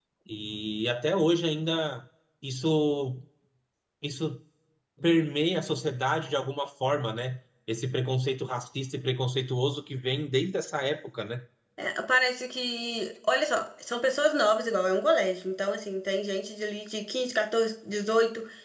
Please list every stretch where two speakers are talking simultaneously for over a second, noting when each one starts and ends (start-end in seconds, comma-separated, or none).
none